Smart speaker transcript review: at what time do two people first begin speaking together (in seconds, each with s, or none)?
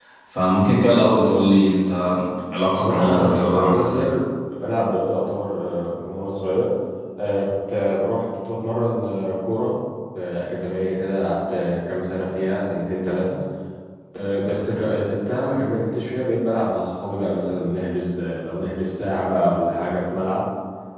2.7 s